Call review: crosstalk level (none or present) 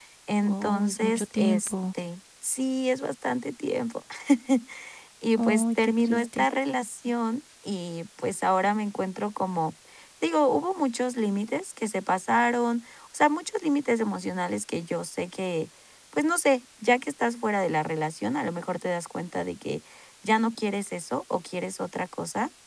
present